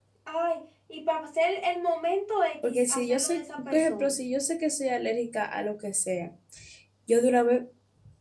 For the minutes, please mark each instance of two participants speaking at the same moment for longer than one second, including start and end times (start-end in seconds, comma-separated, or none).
2.7-4.2